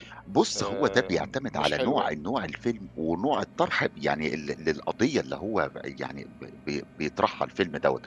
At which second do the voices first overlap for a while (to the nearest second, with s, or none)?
1 s